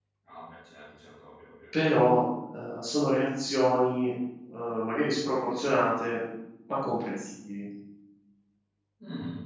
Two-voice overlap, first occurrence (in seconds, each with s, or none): none